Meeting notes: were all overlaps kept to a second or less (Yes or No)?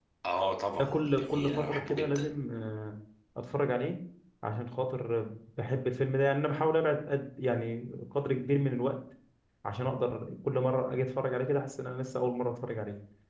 No